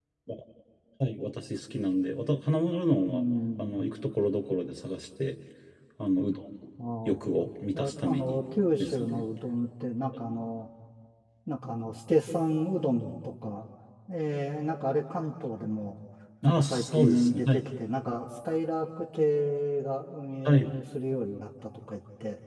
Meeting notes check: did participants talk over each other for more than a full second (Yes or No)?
Yes